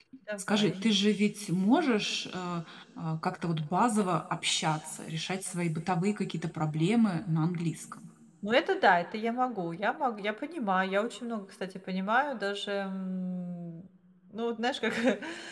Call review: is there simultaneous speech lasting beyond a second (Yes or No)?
No